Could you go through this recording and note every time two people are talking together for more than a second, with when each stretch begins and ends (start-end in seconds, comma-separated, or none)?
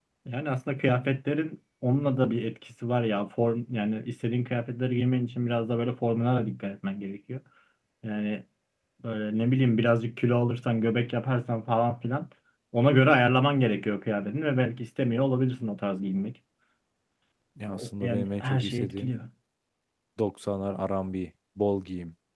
17.8-19.2